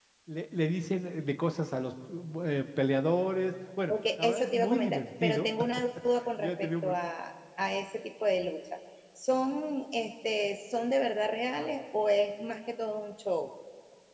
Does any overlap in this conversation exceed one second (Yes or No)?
Yes